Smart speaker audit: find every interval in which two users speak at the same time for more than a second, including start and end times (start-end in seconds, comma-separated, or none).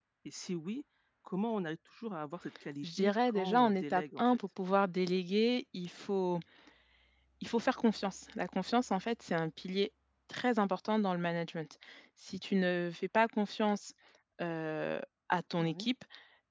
2.8-4.4